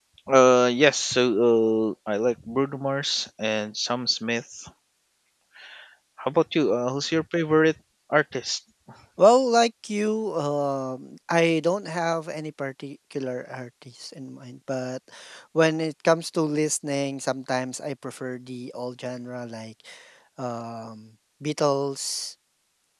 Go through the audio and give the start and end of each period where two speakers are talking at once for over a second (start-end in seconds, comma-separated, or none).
none